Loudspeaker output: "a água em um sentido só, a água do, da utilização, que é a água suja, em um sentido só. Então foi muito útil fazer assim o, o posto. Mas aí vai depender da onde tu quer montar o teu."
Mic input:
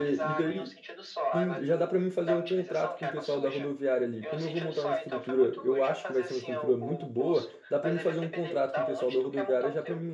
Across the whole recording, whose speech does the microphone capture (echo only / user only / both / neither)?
both